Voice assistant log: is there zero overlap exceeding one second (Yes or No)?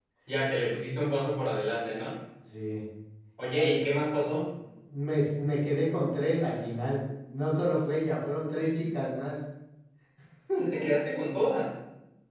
Yes